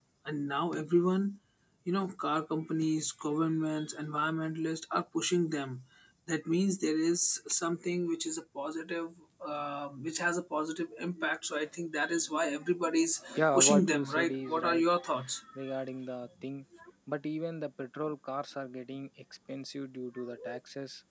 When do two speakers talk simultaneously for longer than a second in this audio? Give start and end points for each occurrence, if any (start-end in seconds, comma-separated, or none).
13.4-14.8